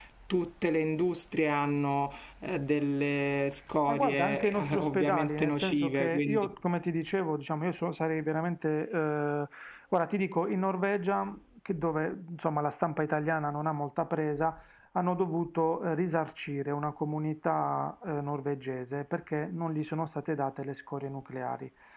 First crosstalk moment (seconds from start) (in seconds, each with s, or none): 3.9 s